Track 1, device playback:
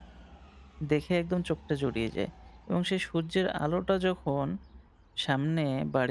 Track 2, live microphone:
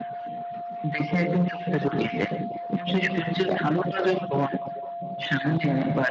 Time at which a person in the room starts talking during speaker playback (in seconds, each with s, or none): none